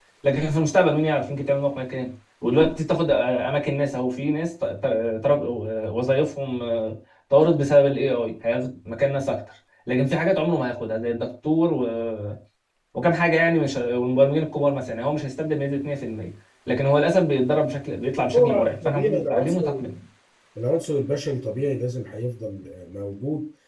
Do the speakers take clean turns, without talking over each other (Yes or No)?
No